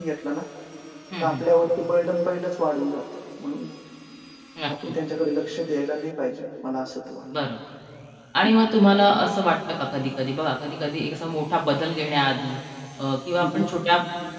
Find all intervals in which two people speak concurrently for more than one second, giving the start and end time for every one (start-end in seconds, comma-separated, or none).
none